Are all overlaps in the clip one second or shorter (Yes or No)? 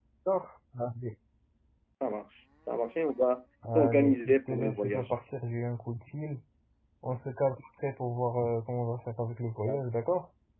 No